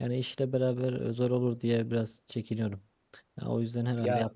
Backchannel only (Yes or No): No